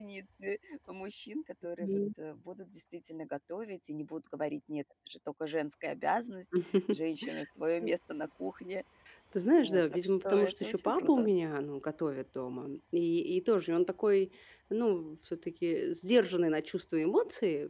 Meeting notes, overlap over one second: present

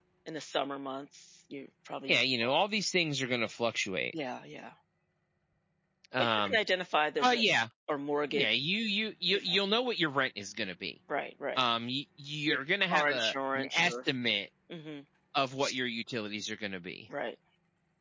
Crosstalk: present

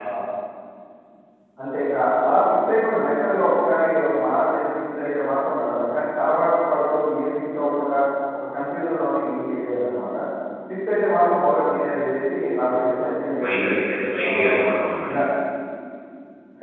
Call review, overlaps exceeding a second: none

